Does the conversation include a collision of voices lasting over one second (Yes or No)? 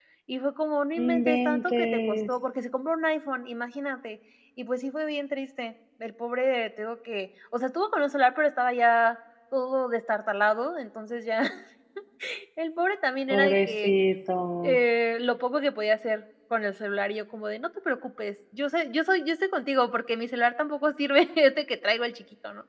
Yes